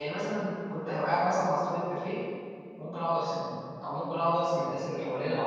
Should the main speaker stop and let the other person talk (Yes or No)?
No